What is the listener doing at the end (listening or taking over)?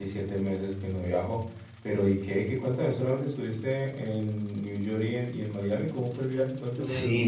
taking over